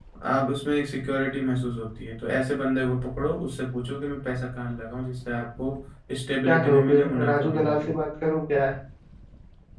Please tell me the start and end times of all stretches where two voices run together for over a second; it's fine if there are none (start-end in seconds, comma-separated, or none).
6.5-7.9